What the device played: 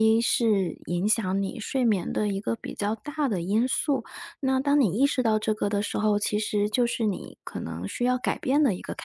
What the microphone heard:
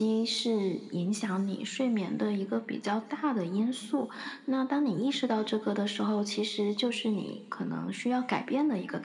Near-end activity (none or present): none